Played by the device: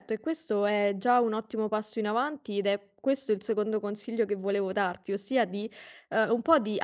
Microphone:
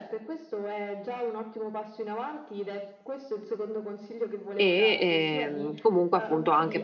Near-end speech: present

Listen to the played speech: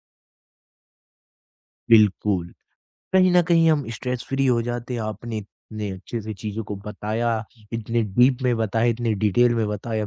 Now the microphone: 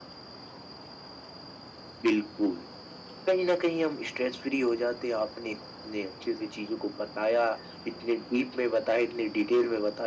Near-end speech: none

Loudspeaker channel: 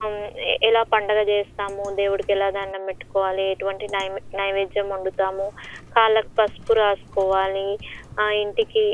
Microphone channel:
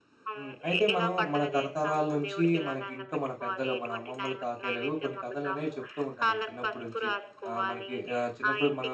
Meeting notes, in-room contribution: present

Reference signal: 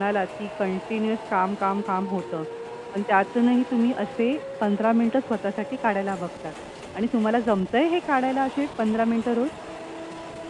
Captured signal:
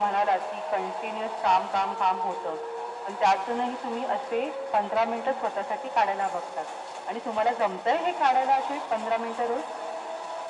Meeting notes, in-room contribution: none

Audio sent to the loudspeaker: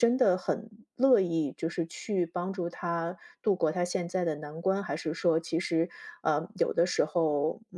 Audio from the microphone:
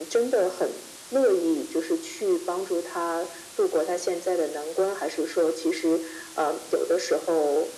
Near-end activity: none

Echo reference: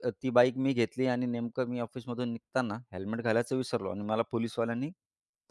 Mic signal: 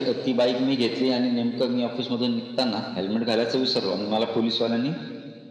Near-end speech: none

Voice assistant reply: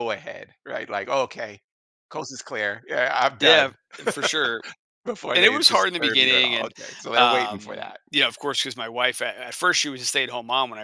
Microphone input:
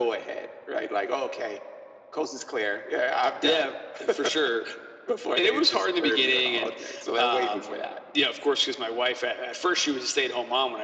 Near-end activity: none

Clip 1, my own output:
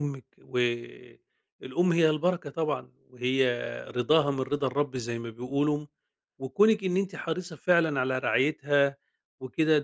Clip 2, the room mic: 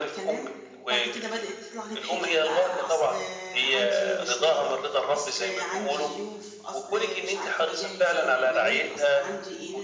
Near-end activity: present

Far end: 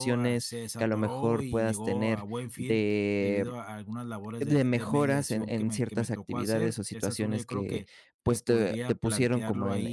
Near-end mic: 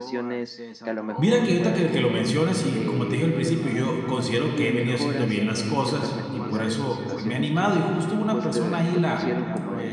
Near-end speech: present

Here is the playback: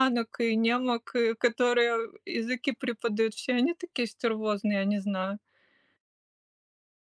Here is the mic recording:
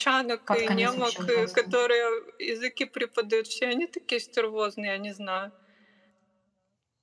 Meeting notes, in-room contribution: present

